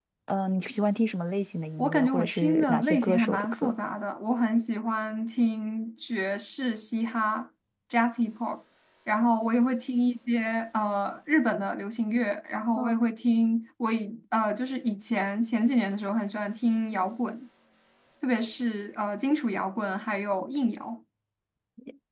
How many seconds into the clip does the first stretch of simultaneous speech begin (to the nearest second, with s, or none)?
2 s